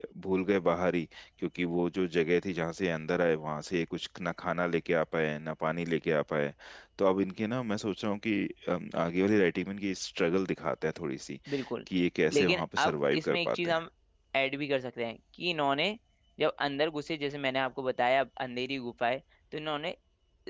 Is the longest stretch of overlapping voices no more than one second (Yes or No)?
No